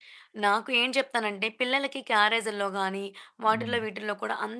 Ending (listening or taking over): listening